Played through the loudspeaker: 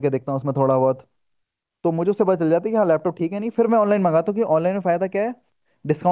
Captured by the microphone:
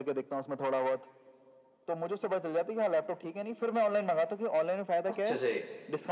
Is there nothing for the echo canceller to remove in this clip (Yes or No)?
No